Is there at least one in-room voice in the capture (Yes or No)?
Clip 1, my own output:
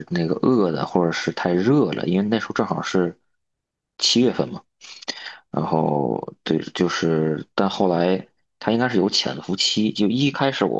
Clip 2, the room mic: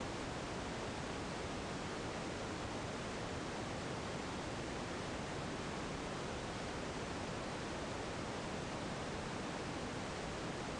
No